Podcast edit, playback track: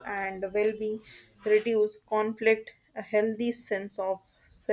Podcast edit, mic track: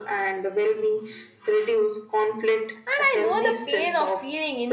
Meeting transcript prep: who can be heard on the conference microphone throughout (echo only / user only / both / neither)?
both